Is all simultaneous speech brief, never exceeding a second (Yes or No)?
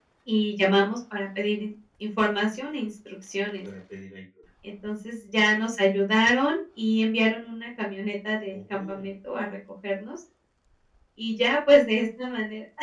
Yes